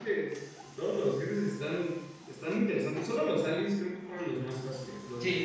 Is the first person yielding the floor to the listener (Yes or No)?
Yes